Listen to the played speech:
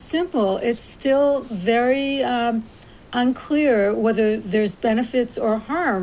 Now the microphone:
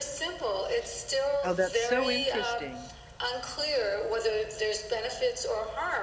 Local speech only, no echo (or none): Oh, that's so interesting.